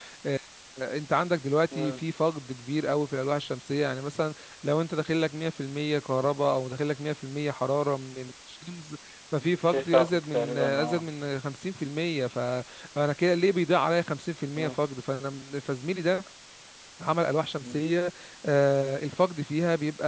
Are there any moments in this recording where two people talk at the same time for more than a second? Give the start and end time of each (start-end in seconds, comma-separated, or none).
9.7-11.1